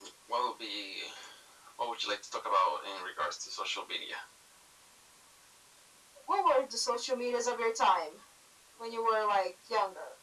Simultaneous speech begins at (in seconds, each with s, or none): none